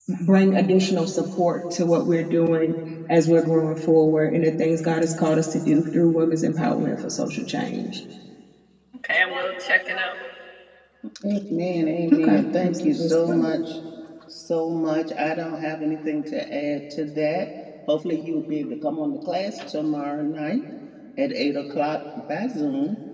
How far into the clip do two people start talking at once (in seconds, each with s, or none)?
12.1 s